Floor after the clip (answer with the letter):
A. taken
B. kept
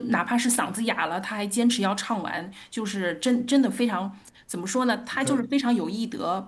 B